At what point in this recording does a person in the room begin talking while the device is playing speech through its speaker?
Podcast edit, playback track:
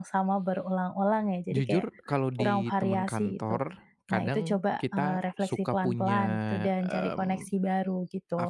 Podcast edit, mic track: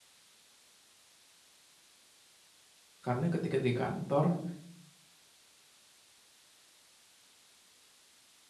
3.0 s

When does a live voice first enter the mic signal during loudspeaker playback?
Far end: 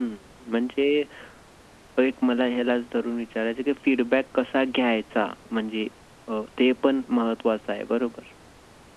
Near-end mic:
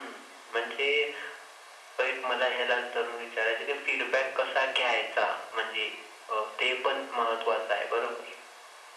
none

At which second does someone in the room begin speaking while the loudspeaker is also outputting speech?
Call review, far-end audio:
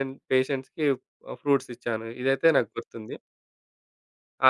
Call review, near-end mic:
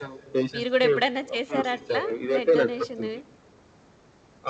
0.5 s

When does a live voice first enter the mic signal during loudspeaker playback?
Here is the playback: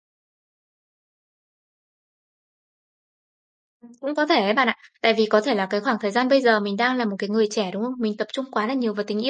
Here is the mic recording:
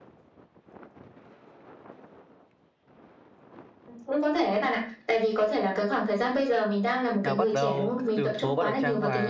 7.2 s

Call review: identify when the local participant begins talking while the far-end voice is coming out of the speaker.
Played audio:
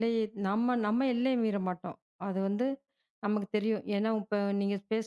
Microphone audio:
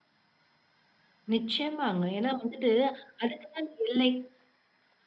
1.3 s

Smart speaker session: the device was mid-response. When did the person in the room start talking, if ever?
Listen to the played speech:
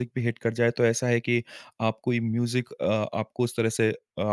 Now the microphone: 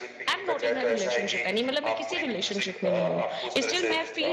0.3 s

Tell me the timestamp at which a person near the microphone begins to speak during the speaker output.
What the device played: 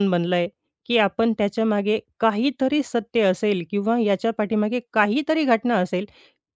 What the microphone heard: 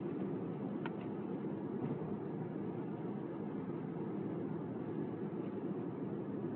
none

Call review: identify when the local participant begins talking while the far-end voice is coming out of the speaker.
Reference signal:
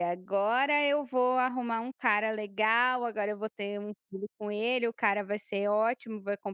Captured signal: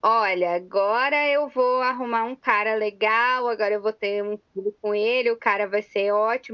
none

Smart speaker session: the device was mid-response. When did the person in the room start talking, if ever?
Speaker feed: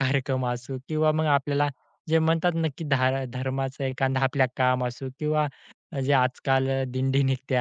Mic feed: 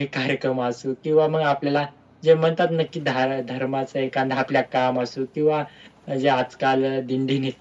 none

